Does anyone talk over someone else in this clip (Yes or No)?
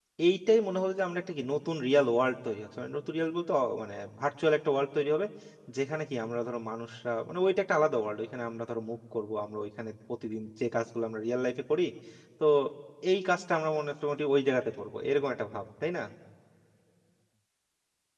No